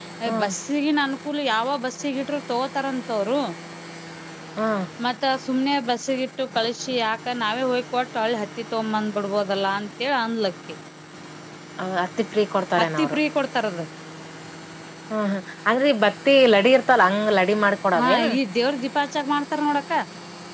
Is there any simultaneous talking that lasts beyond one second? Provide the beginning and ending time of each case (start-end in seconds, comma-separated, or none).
none